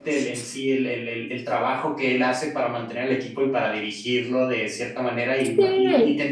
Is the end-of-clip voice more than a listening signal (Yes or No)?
No